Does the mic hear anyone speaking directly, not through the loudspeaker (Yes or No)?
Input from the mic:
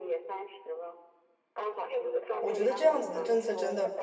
Yes